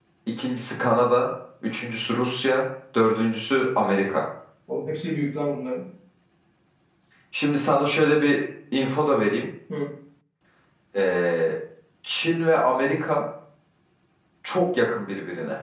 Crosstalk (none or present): none